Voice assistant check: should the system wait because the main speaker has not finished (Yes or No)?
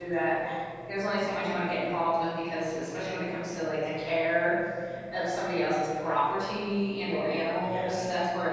Yes